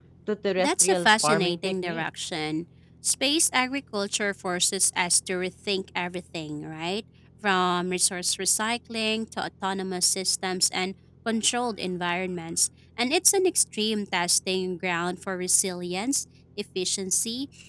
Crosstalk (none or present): present